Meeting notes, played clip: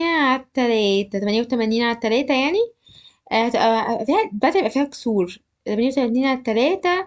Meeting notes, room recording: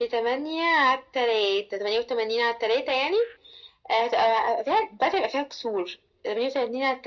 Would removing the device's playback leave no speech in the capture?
Yes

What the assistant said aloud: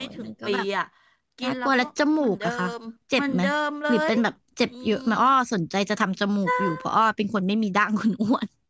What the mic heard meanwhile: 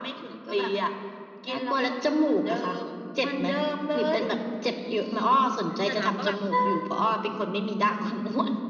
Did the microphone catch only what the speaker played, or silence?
No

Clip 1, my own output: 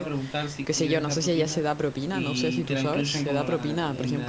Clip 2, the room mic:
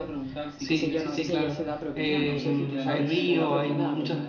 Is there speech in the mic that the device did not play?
Yes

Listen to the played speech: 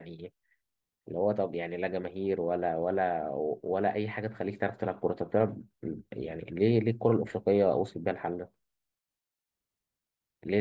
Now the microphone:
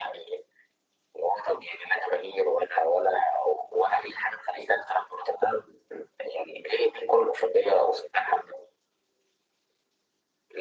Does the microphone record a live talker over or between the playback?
No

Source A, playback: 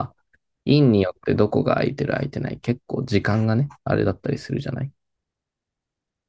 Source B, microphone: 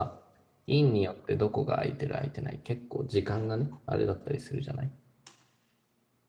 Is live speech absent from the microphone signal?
Yes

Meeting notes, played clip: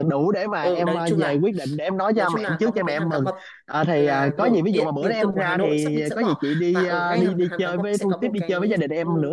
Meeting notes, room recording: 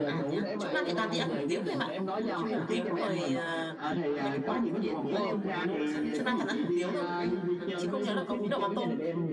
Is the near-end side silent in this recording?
No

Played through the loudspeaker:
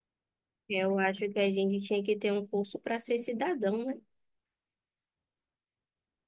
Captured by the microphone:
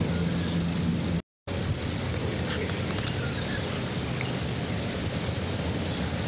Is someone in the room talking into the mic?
No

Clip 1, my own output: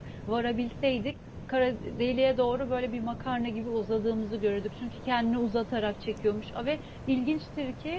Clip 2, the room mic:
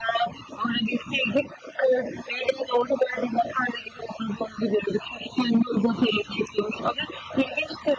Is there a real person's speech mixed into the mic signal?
No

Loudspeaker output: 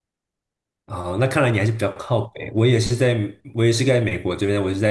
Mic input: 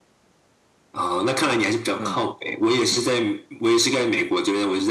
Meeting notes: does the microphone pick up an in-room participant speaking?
Yes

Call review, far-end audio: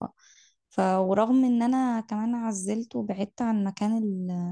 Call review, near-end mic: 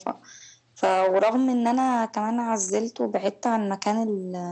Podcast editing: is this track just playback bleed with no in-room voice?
Yes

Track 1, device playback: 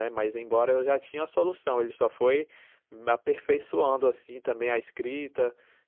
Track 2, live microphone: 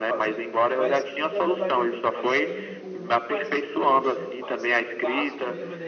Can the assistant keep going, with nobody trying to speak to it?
No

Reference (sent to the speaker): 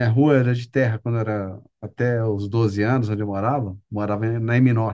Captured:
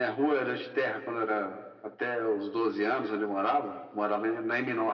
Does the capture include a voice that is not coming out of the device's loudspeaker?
No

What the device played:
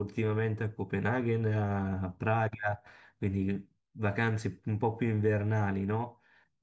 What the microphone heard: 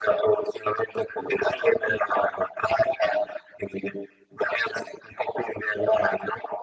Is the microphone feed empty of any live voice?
Yes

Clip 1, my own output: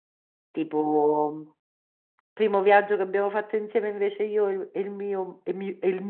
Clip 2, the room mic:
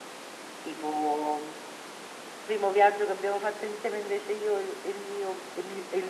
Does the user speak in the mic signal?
No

